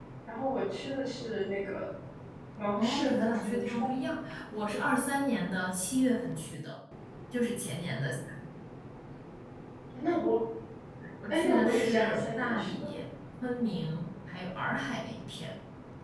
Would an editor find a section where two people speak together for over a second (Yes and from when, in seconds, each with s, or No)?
Yes, from 2.8 s